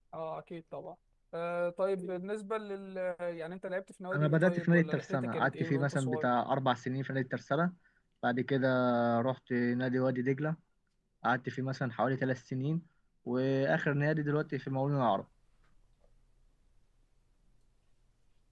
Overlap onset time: 4.1 s

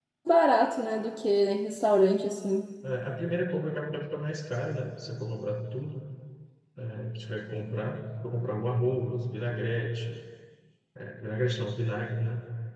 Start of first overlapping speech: none

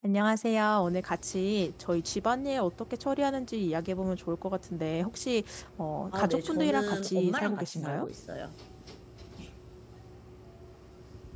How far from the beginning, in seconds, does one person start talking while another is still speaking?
6.1 s

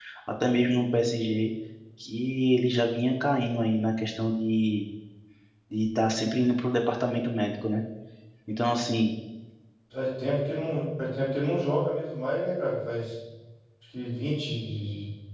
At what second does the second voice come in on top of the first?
none

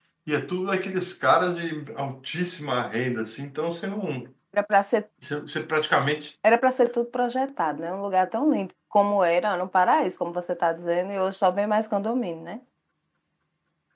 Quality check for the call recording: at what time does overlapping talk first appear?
none

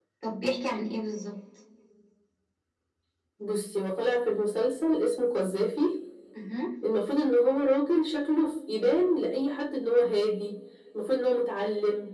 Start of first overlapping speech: none

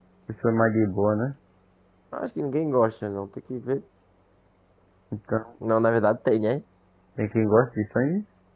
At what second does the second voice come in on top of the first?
none

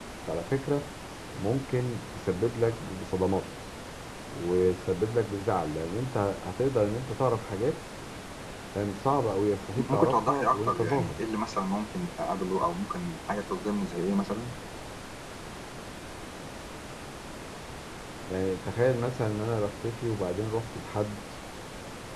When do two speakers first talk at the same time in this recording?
9.8 s

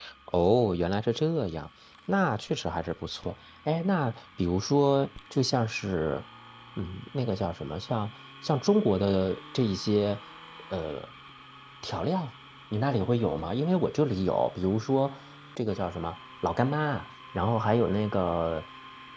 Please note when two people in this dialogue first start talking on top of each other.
none

